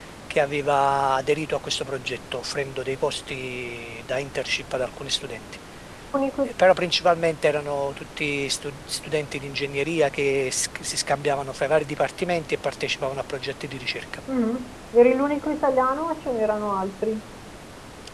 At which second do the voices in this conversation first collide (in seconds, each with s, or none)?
none